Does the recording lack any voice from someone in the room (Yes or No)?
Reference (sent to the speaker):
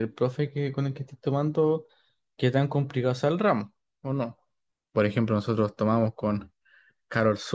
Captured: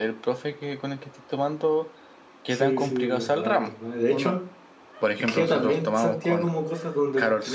No